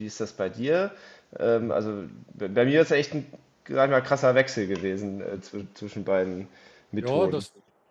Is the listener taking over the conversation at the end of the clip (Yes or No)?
Yes